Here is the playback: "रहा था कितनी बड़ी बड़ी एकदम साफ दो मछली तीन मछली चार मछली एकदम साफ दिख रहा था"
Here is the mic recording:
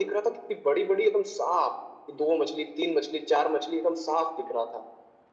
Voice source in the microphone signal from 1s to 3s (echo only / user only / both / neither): echo only